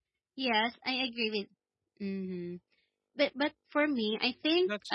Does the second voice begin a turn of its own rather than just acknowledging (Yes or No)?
No